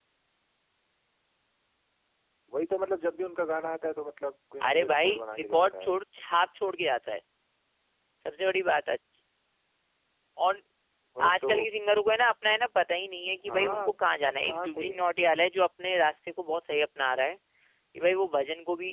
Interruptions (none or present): present